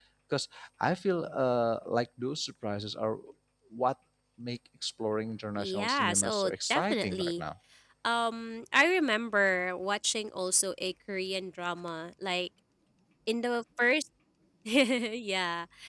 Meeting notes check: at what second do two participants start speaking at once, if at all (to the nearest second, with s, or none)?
6 s